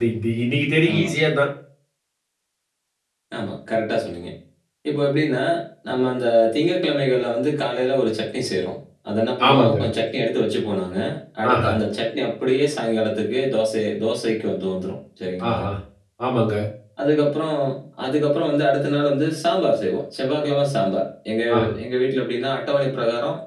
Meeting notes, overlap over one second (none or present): none